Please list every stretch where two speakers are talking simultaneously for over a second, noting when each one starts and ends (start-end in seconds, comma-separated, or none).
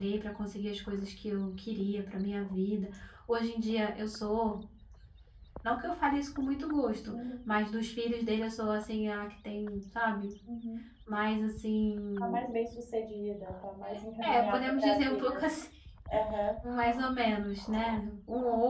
13.9-15.4